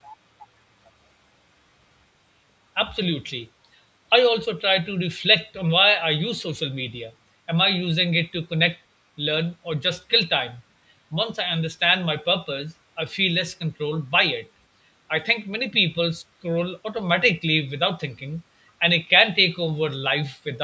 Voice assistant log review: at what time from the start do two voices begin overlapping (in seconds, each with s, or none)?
none